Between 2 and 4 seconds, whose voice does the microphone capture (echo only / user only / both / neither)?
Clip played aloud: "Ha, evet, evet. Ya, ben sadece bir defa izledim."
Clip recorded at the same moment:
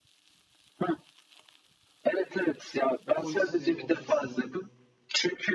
both